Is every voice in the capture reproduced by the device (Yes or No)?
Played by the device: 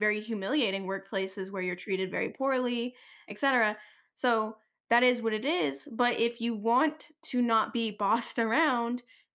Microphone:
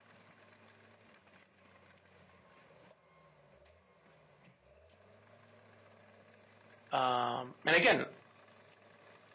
No